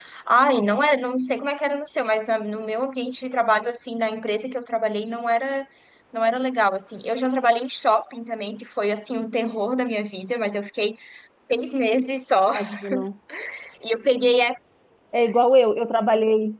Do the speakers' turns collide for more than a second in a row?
No

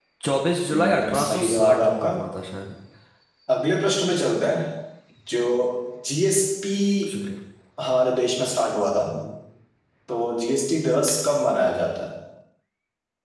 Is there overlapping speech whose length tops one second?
Yes, from 0.7 s

